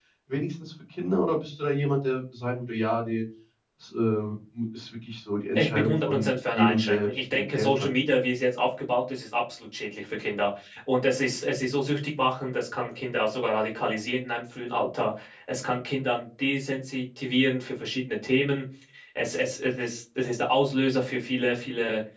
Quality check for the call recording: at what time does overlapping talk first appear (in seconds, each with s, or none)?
5.5 s